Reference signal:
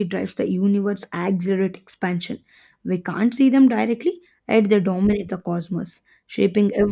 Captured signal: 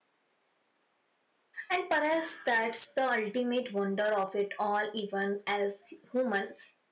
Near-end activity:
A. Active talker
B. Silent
A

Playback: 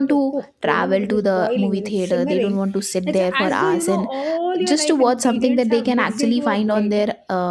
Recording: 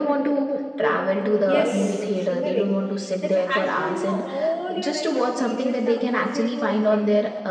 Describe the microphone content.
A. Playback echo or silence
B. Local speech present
B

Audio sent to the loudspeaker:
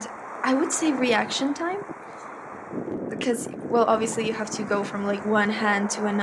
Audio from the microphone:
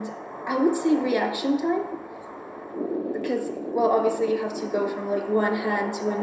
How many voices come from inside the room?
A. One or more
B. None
B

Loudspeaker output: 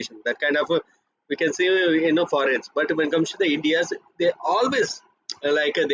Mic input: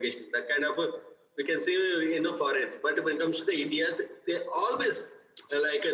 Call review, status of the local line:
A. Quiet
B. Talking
A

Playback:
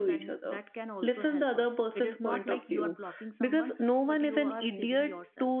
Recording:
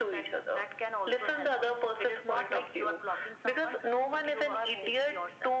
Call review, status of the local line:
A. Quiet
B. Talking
A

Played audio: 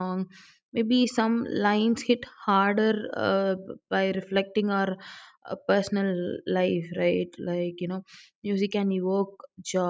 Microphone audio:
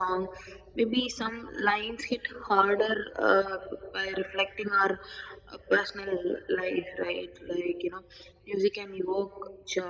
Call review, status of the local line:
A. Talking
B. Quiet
B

